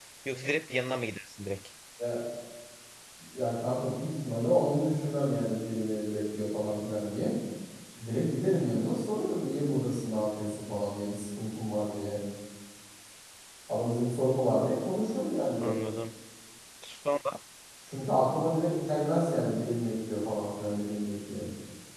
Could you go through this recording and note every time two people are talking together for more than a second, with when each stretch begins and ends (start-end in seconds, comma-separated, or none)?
none